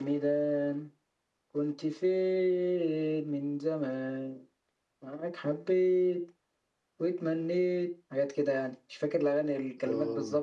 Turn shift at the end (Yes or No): Yes